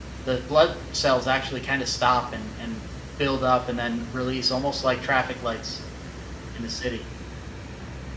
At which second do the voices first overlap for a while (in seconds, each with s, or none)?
none